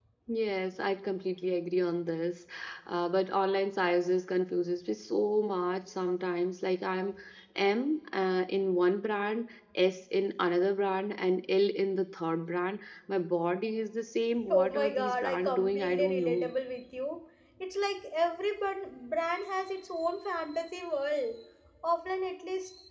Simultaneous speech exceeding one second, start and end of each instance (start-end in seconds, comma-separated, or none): 14.5-16.5